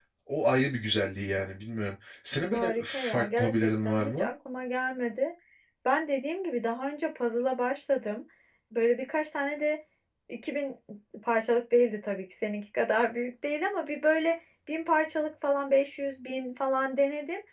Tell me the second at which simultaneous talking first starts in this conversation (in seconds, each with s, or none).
2.5 s